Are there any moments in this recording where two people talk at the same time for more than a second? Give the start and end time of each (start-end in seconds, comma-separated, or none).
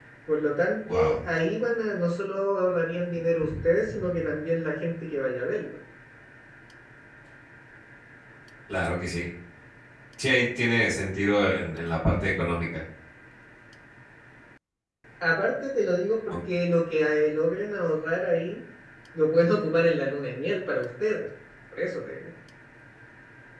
none